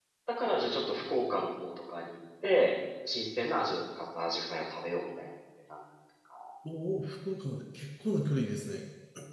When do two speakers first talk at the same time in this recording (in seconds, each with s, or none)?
none